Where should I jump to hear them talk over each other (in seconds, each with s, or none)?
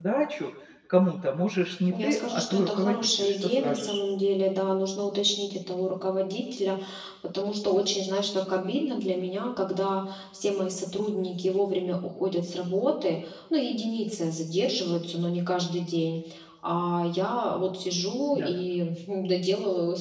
1.9 s